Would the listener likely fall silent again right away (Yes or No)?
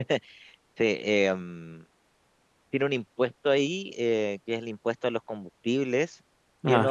Yes